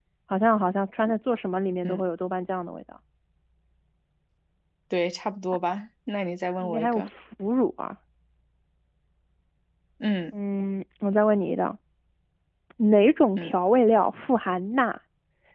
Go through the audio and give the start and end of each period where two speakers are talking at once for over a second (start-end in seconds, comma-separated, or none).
none